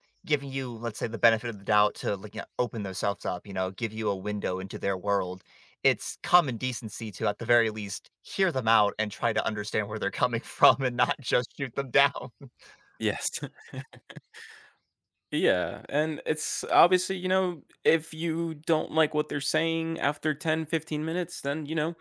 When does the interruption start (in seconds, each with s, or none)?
none